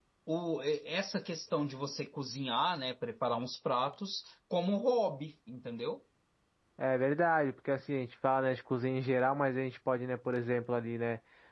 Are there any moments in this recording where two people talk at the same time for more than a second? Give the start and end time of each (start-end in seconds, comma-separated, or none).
none